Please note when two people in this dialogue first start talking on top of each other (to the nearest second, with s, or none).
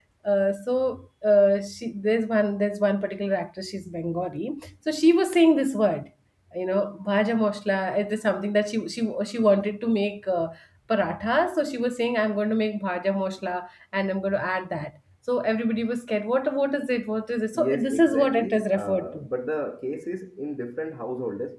18 s